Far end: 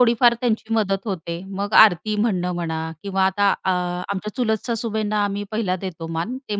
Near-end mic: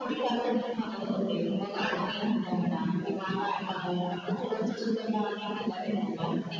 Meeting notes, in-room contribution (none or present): none